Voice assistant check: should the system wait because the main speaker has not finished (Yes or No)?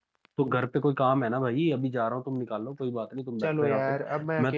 No